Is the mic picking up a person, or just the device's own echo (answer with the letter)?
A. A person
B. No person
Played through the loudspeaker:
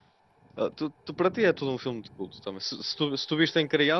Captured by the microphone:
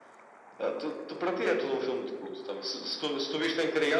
B